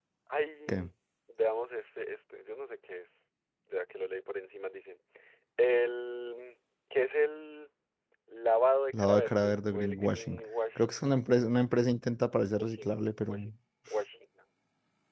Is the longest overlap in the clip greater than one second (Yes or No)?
Yes